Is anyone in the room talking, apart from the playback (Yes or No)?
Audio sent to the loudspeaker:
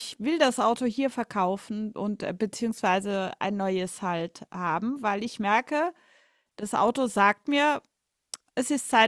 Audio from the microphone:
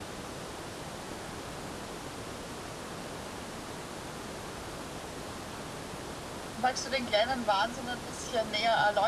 Yes